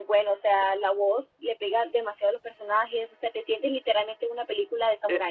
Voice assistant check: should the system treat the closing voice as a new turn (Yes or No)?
Yes